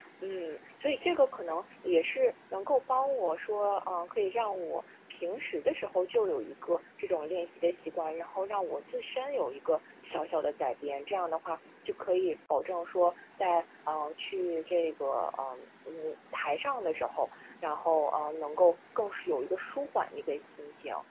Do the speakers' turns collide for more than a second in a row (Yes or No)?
No